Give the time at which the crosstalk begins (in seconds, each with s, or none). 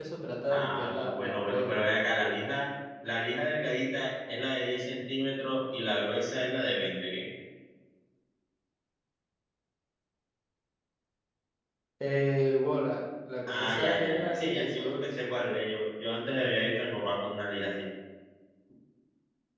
0.5 s